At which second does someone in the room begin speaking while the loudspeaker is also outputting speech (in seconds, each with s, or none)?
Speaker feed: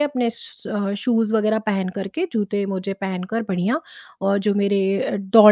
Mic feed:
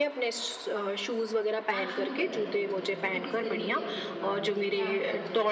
1.8 s